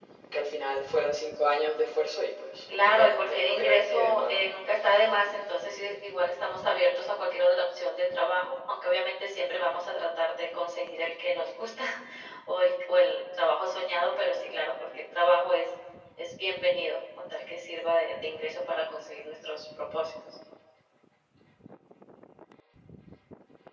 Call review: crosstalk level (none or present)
present